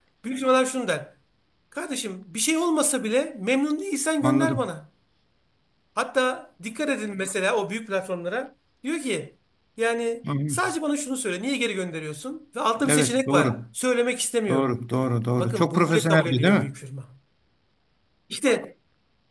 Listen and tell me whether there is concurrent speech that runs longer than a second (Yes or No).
Yes